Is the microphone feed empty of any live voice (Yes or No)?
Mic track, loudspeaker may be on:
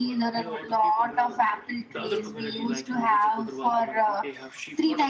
No